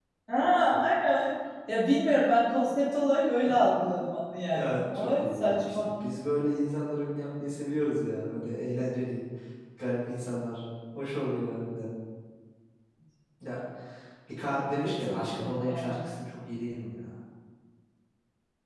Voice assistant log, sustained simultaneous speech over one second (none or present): present